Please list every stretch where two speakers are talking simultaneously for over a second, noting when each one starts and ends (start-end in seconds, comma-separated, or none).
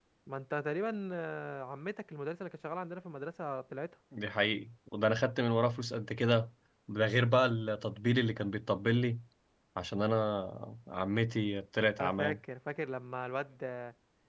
none